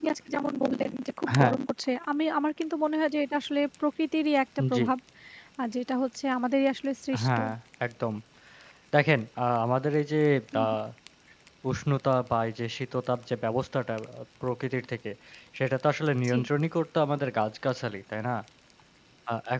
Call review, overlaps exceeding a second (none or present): none